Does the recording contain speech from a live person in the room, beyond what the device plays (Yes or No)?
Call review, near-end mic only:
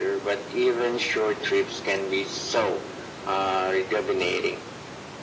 No